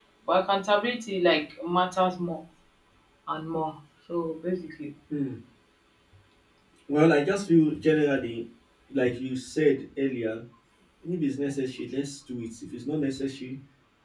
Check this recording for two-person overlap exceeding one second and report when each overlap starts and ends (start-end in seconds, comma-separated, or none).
none